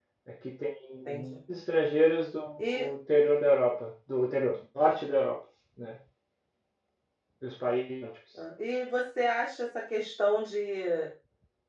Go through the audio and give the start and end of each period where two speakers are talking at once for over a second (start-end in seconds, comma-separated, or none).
none